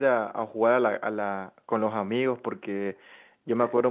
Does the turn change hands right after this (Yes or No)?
No